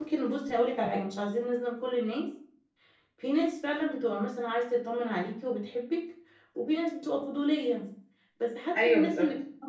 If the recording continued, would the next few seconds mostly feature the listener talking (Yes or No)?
No